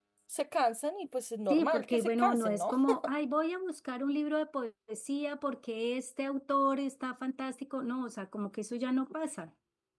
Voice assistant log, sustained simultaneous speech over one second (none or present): present